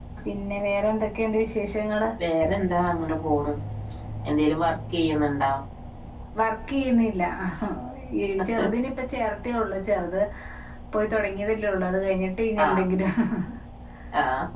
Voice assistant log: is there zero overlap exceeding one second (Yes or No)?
Yes